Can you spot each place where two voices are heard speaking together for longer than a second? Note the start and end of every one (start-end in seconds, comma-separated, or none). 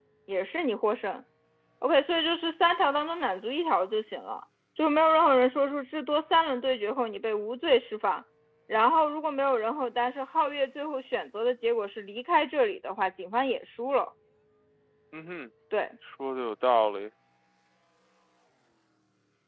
none